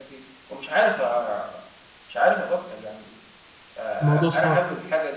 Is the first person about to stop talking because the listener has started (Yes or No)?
No